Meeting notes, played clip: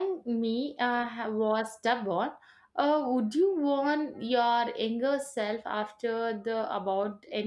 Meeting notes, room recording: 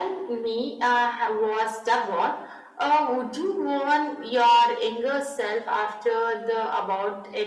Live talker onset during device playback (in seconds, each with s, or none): none